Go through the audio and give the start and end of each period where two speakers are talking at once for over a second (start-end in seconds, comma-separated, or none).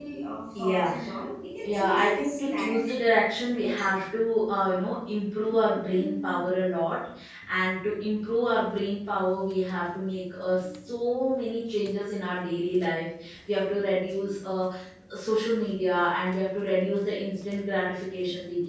1.6-3.0